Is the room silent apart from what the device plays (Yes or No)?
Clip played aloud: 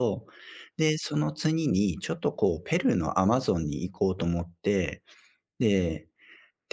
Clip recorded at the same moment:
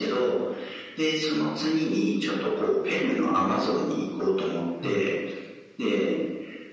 No